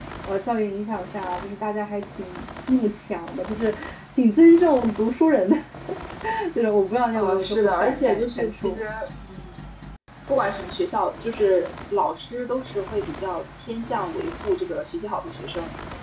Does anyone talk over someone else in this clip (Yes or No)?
Yes